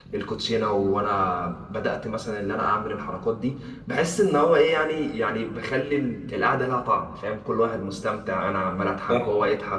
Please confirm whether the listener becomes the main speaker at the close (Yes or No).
No